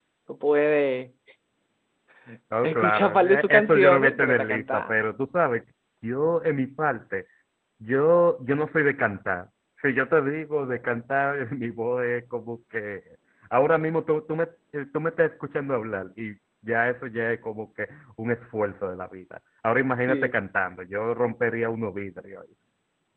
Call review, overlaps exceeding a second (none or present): present